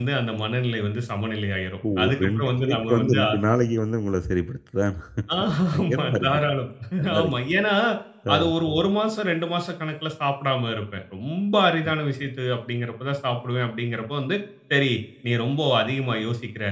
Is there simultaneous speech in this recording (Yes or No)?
Yes